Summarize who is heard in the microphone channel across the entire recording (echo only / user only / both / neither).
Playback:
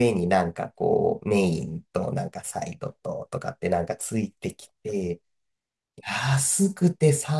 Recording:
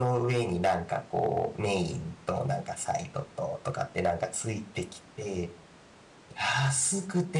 echo only